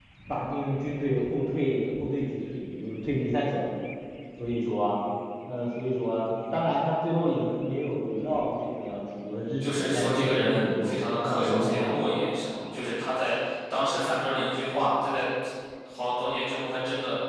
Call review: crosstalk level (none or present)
present